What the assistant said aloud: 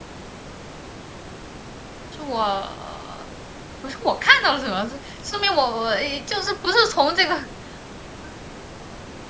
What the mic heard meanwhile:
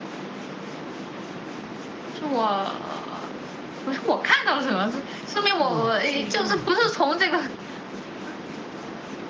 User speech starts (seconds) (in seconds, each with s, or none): 5.6 s